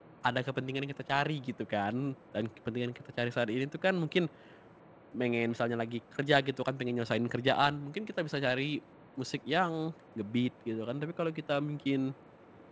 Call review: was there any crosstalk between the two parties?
No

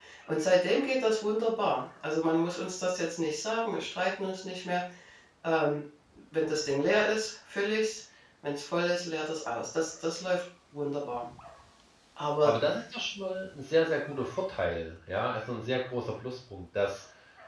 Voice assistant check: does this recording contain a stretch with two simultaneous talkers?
No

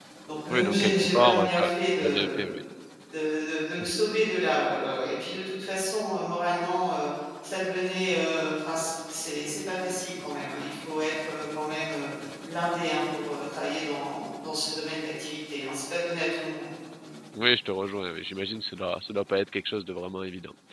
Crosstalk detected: Yes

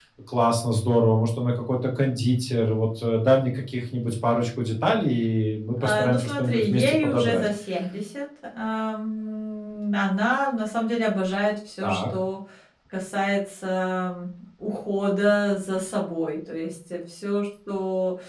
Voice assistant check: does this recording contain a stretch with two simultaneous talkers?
Yes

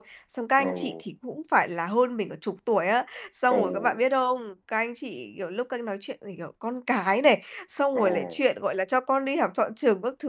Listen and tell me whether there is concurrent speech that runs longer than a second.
No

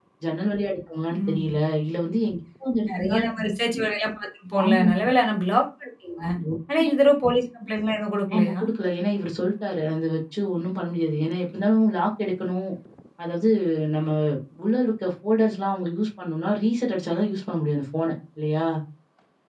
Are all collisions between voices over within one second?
Yes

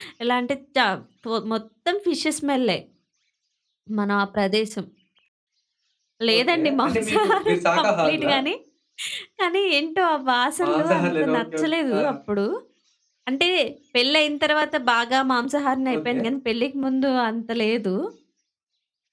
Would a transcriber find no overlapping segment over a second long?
No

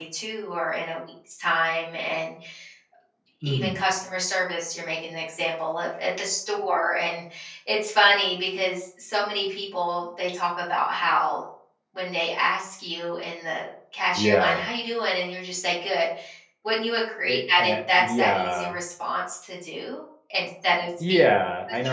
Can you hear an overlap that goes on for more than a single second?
Yes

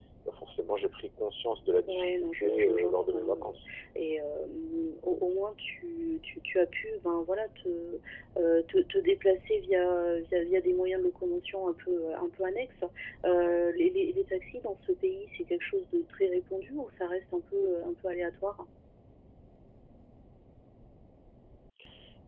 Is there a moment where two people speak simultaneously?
Yes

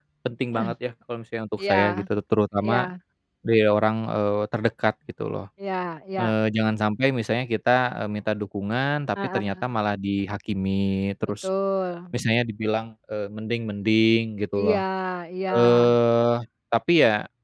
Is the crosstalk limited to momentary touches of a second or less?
Yes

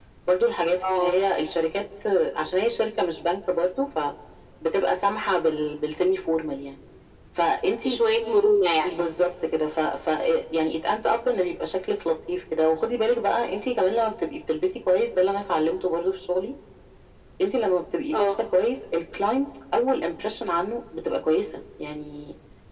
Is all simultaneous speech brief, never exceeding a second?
Yes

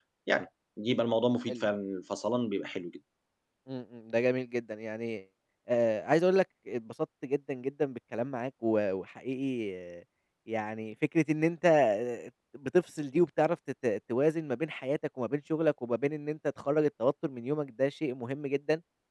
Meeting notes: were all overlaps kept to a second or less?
Yes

